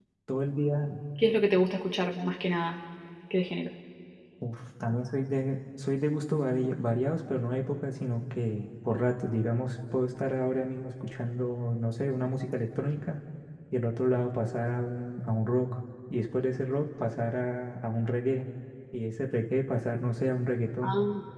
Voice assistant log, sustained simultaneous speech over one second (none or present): none